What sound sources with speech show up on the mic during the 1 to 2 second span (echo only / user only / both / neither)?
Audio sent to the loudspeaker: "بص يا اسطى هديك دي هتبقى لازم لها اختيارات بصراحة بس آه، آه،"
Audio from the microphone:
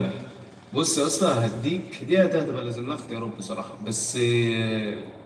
echo only